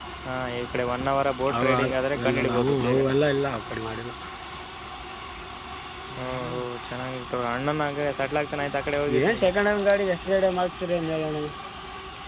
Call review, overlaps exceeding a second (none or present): present